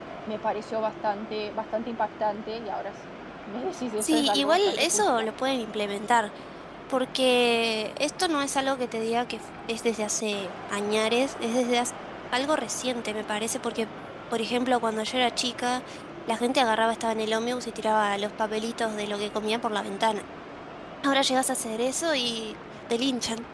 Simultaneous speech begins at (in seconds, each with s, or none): 4.0 s